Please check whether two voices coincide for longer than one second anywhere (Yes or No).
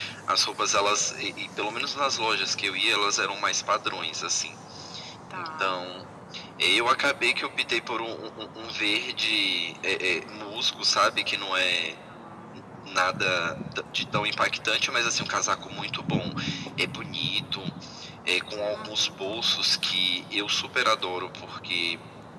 No